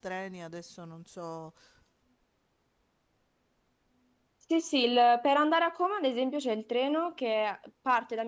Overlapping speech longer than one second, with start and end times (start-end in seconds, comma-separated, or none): none